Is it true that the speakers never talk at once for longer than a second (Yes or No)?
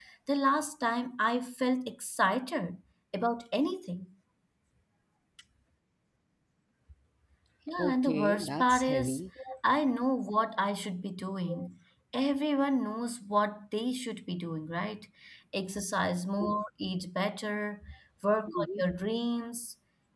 No